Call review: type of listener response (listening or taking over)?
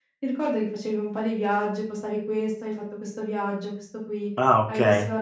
listening